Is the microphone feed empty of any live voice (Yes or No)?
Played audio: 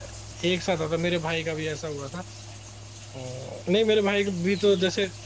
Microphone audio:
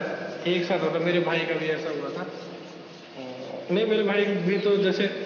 Yes